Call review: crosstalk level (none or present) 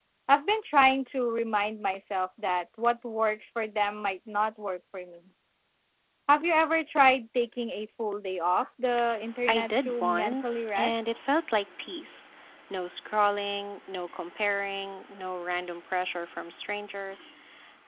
present